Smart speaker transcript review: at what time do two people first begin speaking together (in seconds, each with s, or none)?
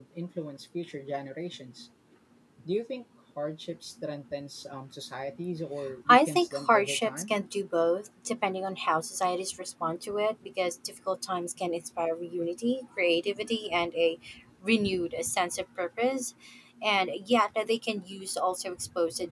6.1 s